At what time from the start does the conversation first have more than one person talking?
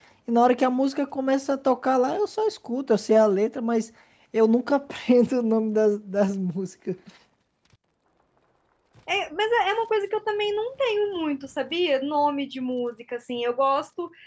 none

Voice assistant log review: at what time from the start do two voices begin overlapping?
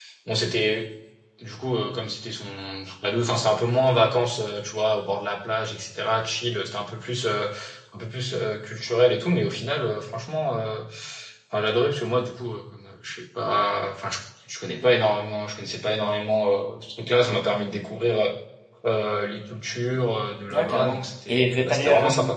20.5 s

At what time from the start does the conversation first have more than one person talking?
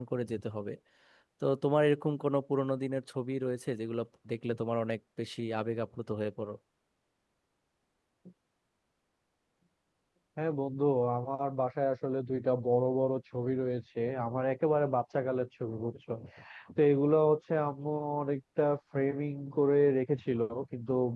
none

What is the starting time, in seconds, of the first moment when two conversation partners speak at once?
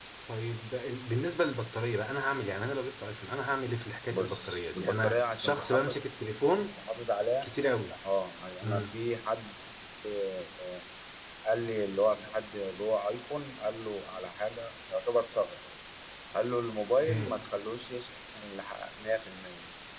4.2 s

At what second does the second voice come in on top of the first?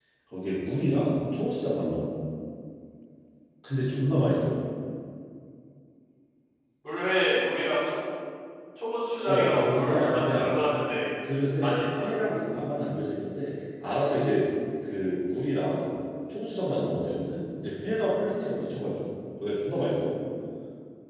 9.2 s

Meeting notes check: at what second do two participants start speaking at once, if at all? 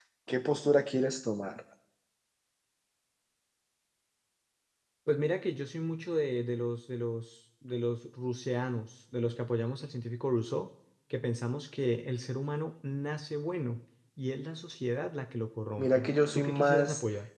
15.8 s

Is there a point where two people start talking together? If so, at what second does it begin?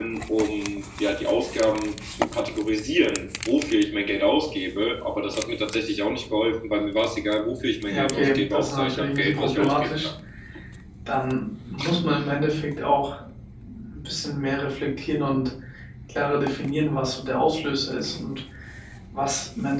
7.8 s

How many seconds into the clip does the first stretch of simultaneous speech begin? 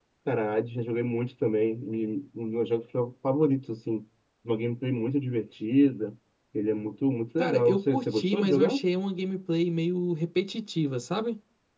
7.4 s

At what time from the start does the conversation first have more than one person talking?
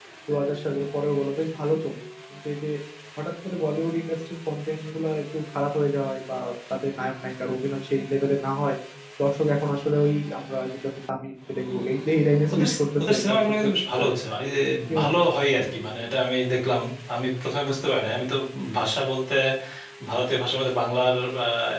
12.5 s

